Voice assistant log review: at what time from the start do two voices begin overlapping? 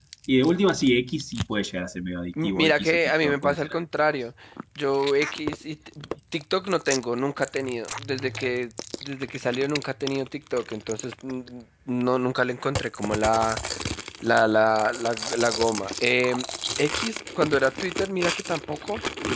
2.4 s

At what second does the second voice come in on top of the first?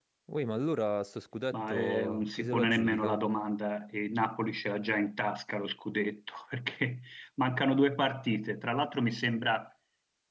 1.5 s

